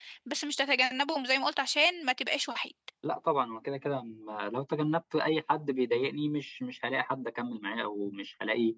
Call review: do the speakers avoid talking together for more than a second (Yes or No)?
Yes